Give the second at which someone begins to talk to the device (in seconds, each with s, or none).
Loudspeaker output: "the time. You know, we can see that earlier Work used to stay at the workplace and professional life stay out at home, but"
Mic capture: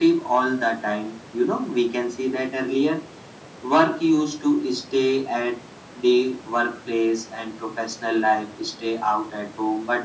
none